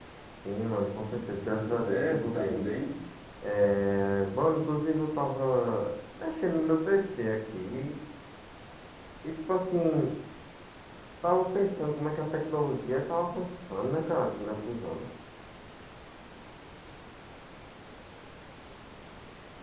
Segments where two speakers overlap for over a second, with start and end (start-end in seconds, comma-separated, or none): 1.5-2.7